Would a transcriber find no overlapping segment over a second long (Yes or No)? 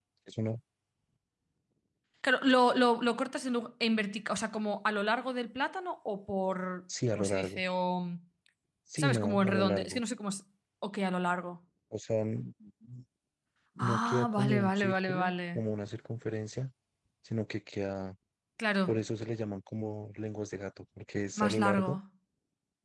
No